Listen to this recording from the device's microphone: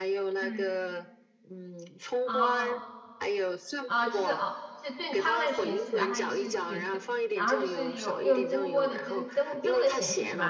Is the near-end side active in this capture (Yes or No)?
Yes